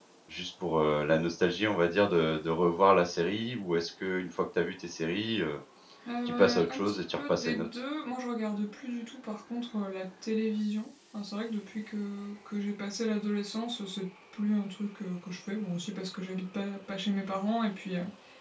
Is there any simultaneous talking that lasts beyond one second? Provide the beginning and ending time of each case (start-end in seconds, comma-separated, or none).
6.3-7.7